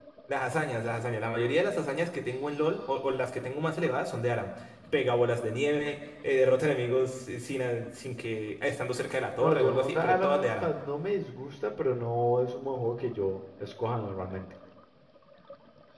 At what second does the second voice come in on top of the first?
9.4 s

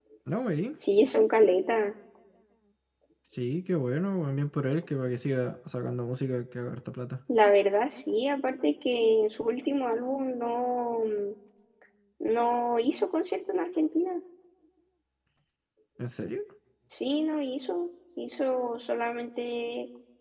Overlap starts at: none

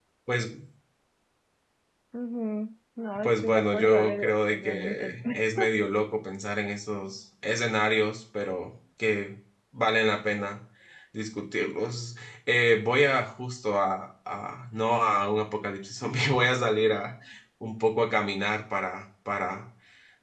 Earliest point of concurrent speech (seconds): 3.1 s

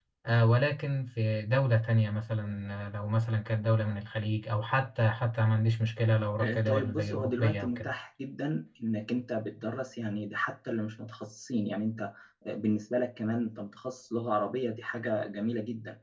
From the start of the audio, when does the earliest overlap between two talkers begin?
6.4 s

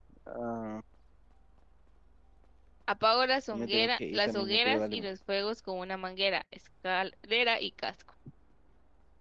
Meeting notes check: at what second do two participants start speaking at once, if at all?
3.5 s

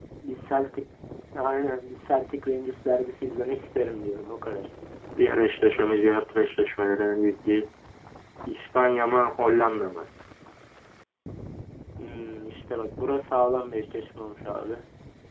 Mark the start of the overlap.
none

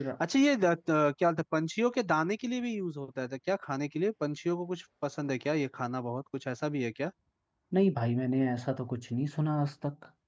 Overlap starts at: none

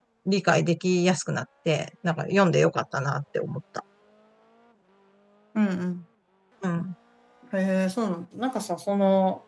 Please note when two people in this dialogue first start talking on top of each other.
none

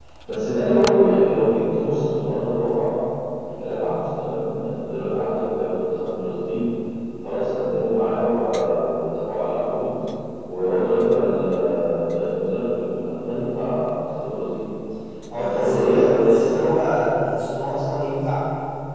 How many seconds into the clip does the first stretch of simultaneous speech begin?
15.4 s

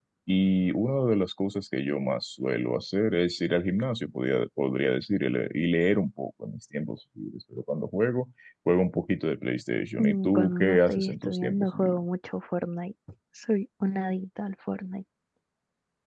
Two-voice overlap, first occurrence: 10.0 s

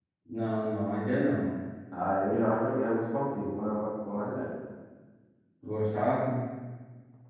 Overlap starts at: none

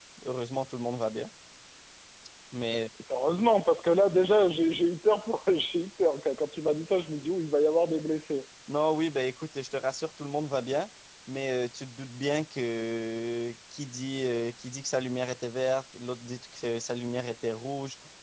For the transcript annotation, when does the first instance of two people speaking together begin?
none

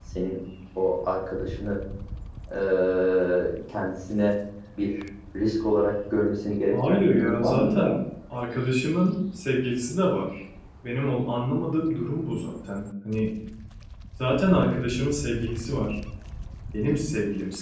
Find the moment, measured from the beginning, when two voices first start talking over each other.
6.7 s

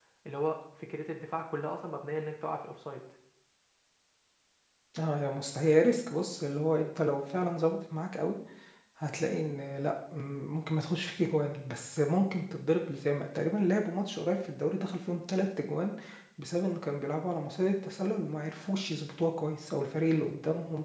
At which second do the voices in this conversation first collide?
none

